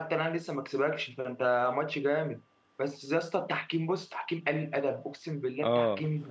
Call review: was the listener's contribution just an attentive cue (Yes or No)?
No